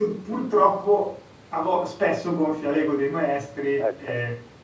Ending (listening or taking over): listening